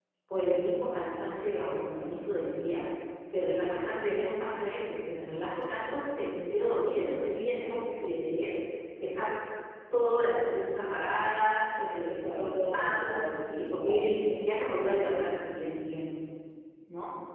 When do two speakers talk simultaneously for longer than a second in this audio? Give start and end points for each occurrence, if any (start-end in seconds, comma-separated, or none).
12.2-14.1